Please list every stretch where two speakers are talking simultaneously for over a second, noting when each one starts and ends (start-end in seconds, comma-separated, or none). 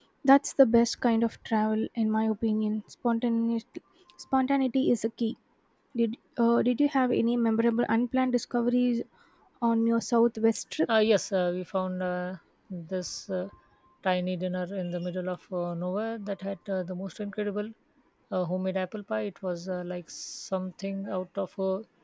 none